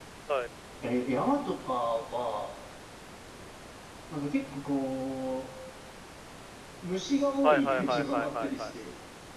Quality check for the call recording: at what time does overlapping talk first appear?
7.4 s

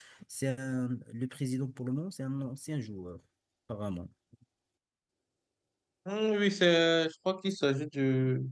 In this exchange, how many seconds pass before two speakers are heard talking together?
none

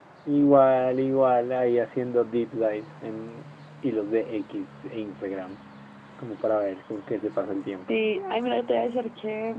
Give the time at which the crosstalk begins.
none

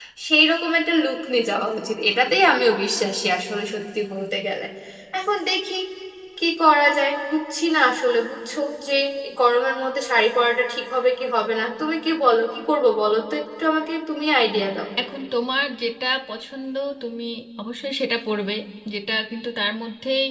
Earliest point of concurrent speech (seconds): none

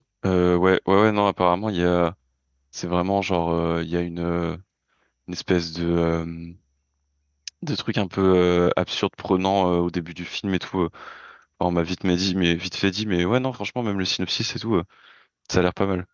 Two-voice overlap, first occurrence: none

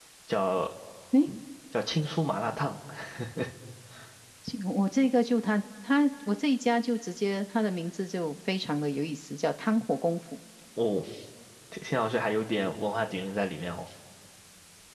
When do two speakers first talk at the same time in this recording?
none

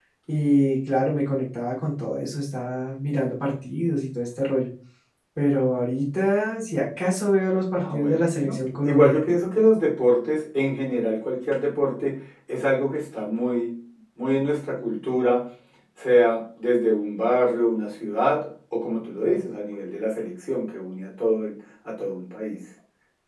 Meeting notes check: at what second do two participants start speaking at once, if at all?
7.8 s

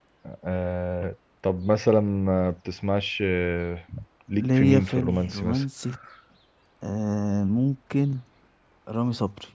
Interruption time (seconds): 4.4 s

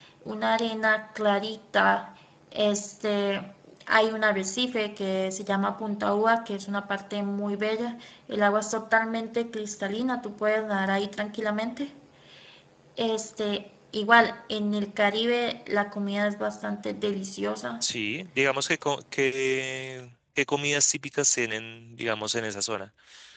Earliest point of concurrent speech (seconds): none

